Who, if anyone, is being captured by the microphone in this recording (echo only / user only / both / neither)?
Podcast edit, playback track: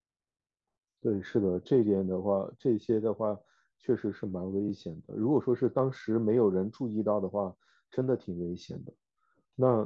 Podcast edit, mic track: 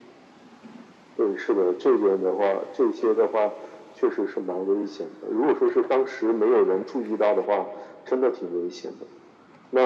echo only